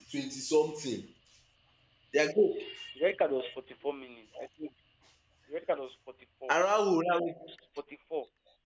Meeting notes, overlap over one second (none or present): none